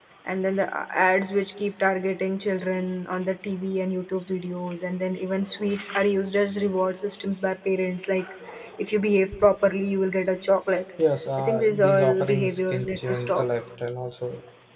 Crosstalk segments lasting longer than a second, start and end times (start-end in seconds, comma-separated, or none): 11.4-13.4